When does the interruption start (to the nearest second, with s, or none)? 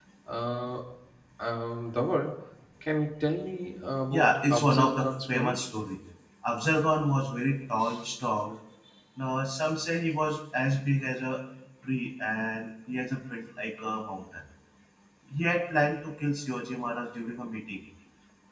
4 s